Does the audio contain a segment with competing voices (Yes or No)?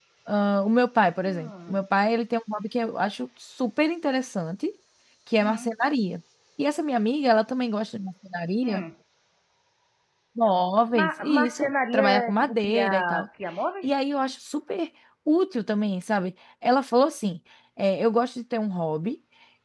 Yes